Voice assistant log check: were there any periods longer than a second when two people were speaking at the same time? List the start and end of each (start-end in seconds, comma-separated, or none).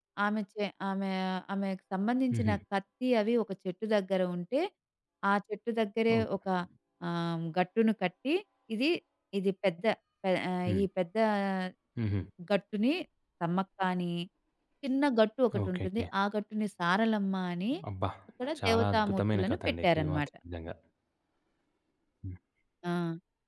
18.6-20.3